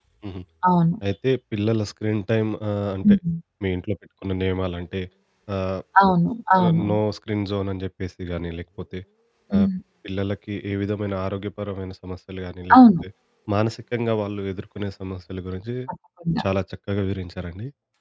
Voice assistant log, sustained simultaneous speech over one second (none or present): none